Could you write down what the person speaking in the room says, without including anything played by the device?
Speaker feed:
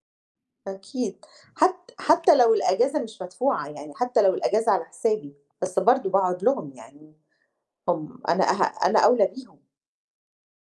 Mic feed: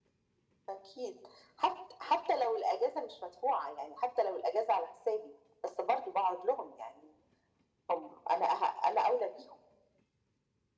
none

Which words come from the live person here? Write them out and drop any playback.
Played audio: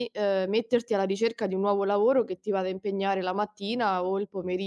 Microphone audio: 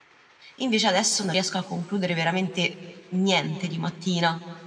invece adesso non riesco a concludere veramente niente di mattina.

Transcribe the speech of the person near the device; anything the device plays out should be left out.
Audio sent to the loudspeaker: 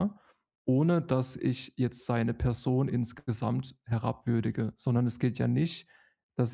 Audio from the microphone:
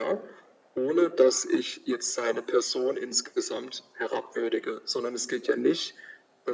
none

